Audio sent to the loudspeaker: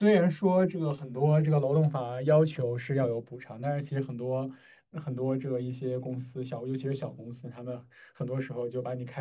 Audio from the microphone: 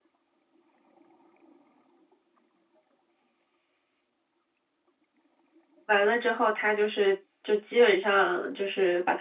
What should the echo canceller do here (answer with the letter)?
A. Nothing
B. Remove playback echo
A